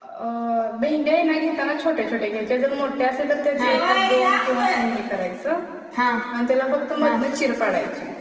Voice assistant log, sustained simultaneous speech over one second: present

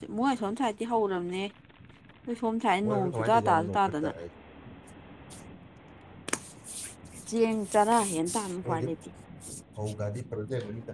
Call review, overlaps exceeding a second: present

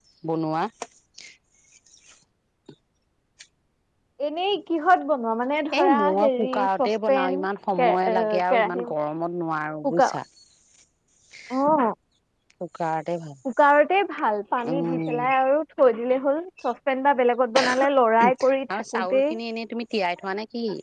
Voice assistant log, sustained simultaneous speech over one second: present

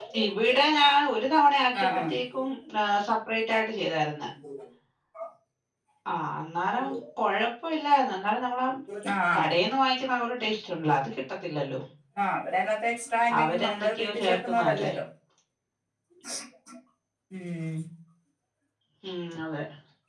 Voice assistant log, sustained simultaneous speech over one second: present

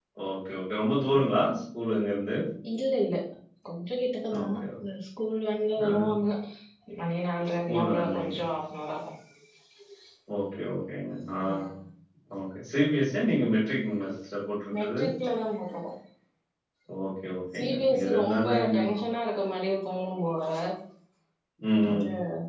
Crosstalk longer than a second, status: present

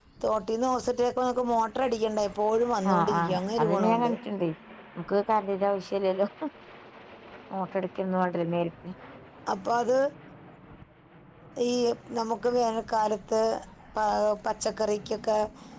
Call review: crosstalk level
present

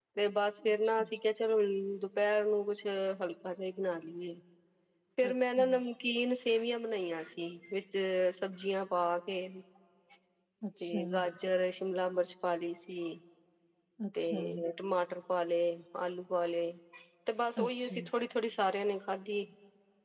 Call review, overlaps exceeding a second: none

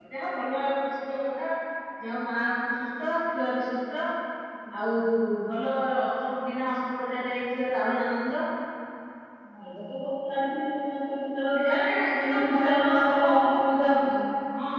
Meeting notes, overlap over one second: present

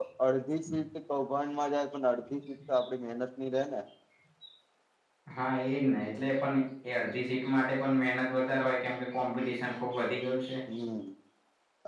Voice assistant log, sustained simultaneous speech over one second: none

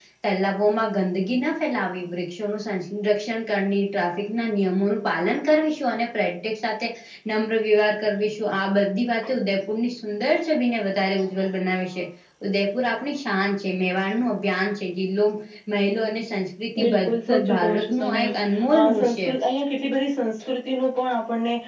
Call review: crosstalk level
present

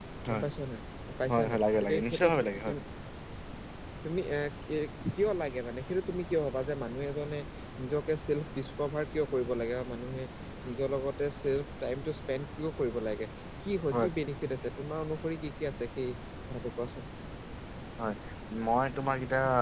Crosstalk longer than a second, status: present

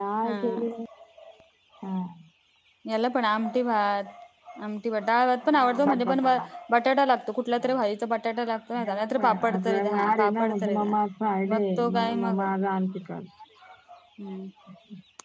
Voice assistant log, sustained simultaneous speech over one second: present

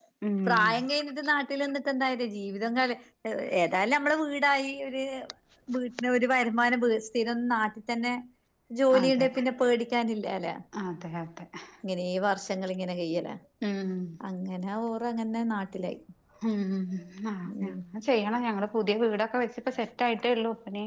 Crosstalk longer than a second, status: none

